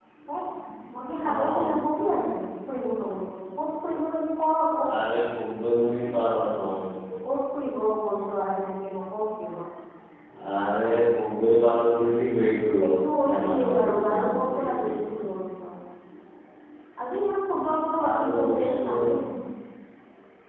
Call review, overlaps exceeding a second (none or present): present